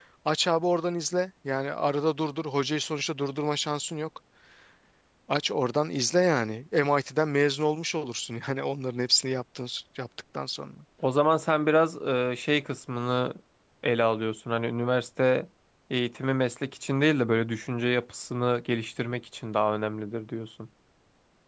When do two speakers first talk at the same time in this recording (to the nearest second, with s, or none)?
none